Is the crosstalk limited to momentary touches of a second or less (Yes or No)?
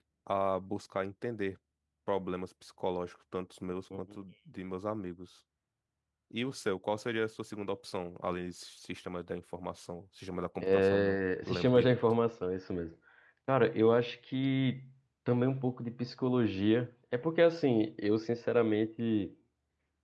No